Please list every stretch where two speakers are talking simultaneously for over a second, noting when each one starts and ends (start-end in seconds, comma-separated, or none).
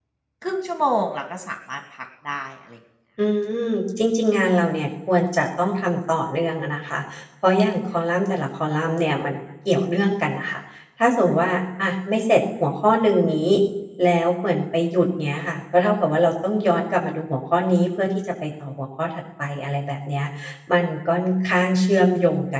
none